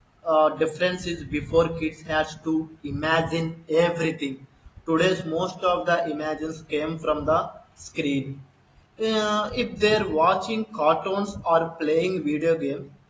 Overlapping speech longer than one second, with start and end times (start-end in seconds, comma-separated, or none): none